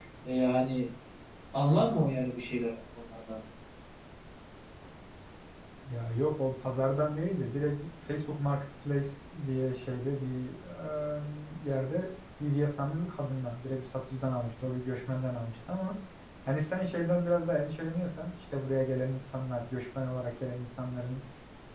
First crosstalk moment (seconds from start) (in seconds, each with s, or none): none